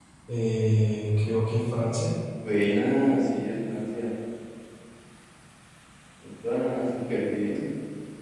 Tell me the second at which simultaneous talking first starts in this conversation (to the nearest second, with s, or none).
none